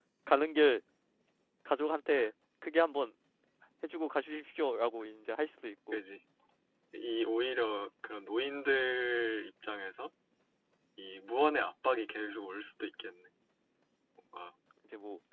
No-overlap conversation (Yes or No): Yes